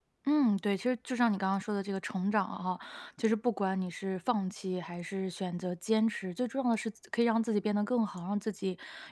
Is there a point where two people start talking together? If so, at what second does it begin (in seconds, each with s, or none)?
none